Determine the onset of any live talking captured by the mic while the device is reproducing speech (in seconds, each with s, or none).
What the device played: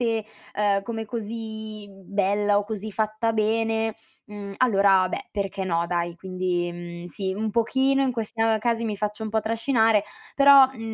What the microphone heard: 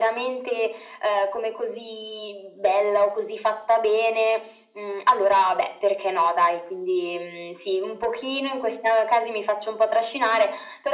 none